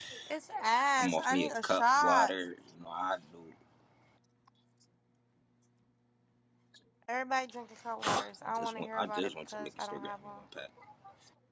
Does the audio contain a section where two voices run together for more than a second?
Yes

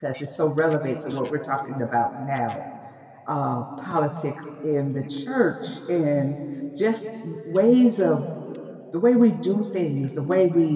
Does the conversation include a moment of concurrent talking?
No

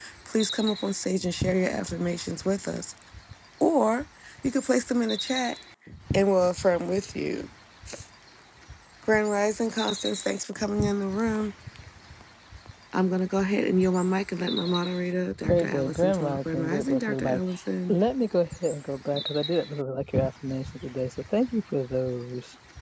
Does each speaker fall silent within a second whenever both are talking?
No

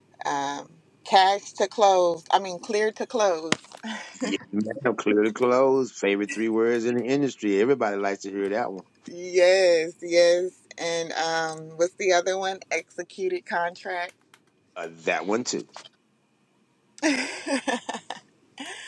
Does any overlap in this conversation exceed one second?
No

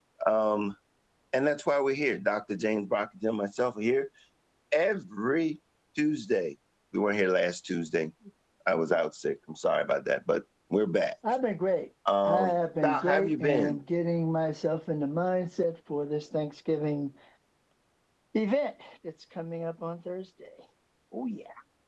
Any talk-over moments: Yes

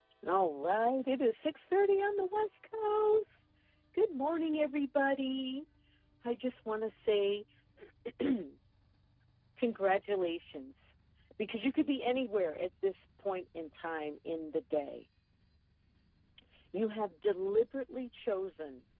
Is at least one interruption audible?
No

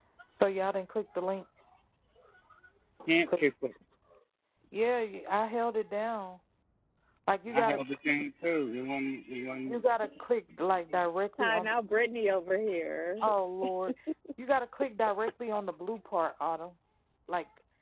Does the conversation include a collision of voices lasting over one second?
No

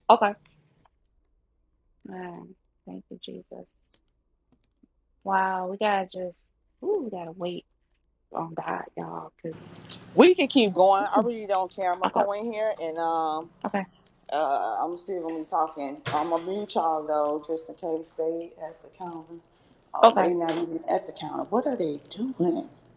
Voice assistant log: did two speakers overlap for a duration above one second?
No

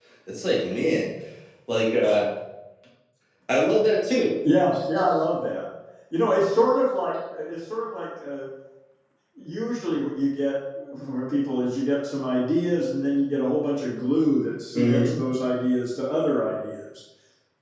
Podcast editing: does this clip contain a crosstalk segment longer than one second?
No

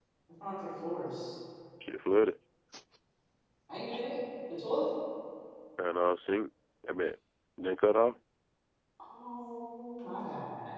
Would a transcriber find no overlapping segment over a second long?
Yes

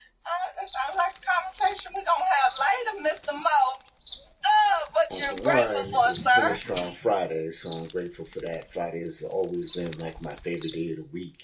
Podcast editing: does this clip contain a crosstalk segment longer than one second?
Yes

